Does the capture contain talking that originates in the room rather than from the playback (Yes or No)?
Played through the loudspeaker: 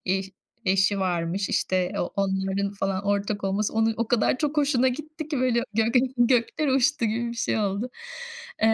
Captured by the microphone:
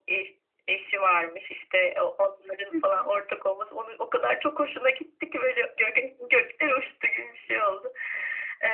Yes